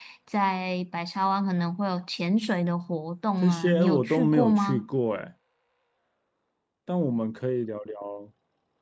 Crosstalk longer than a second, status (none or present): present